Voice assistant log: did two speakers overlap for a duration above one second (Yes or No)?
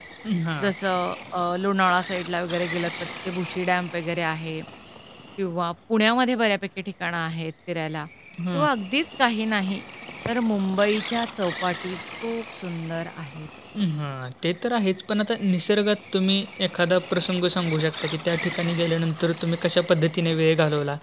No